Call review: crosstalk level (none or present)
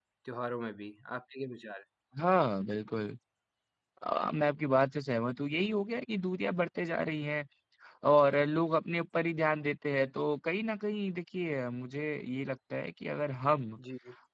none